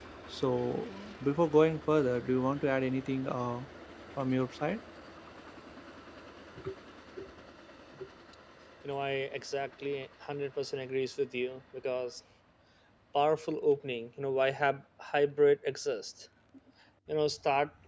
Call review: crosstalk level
none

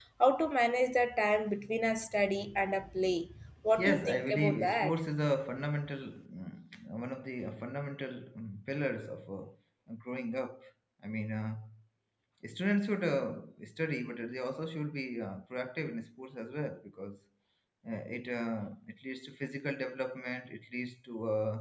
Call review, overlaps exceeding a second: present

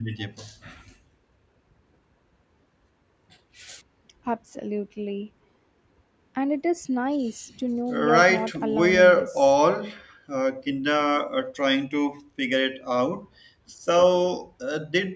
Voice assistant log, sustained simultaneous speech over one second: present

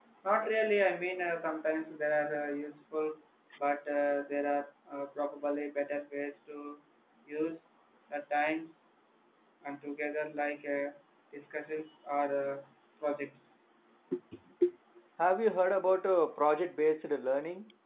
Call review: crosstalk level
none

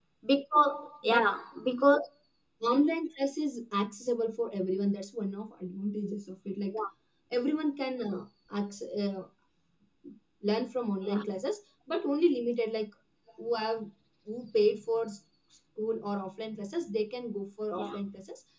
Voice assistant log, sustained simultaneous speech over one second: none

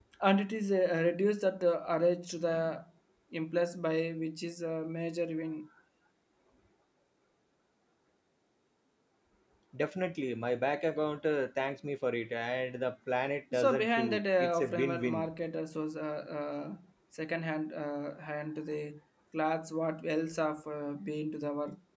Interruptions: present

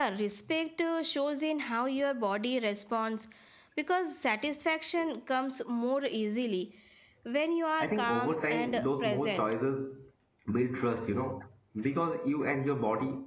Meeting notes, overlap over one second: present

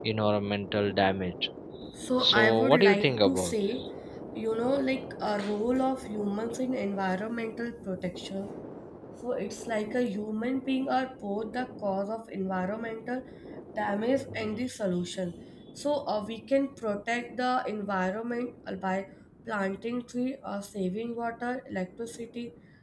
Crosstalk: present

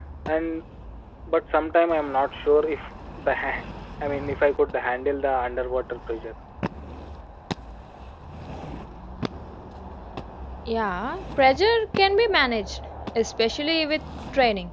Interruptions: none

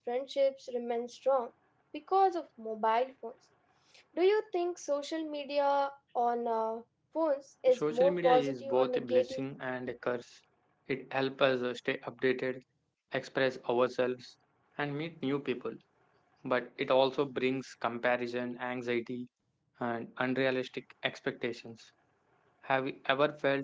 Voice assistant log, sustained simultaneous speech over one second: present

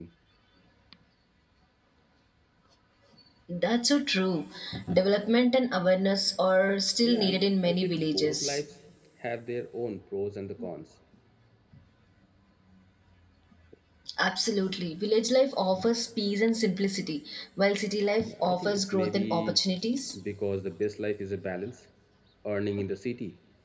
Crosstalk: present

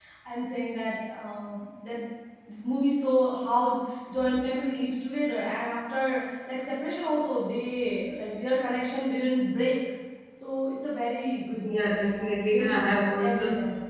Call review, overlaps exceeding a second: present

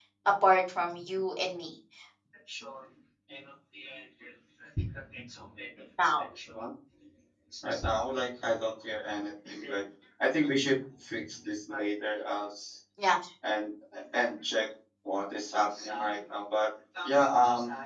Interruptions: none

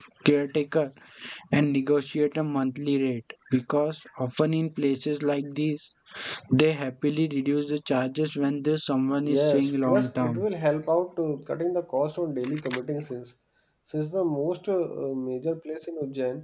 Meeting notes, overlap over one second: present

